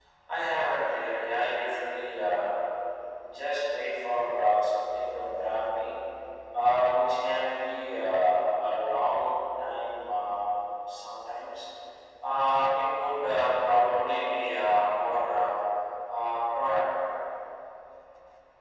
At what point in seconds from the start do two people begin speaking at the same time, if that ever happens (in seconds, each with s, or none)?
none